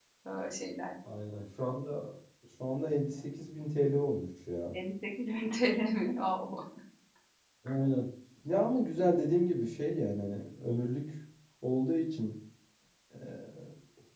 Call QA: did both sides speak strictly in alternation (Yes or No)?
Yes